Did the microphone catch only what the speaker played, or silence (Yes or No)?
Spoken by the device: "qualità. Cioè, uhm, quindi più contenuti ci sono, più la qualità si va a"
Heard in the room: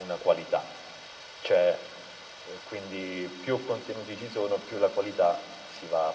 Yes